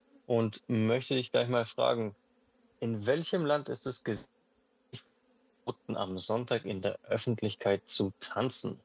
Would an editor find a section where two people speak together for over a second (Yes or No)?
No